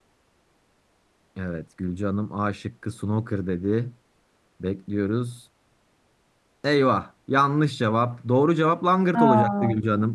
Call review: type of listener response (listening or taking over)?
listening